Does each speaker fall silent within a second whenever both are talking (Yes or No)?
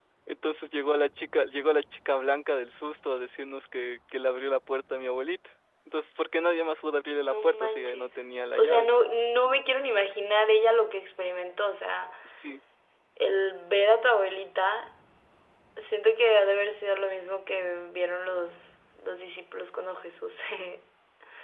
No